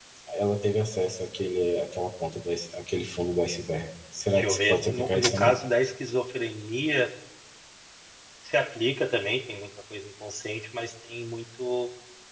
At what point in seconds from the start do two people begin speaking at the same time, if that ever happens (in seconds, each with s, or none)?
4.3 s